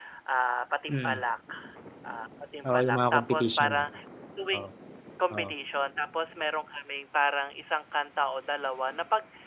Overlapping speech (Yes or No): Yes